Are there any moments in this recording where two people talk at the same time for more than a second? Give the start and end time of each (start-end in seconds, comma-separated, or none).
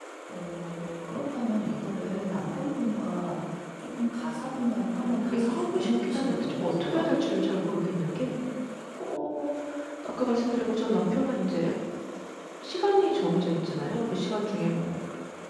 5.0-7.0